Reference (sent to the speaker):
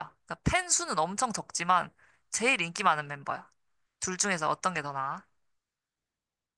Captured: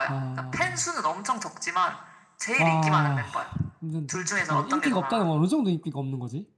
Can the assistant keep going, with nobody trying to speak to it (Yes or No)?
No